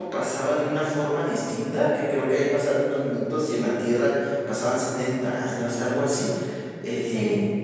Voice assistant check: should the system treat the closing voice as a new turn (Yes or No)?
Yes